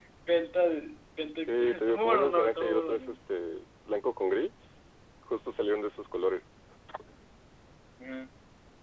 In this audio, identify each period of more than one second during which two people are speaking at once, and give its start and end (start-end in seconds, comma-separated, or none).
1.5-3.1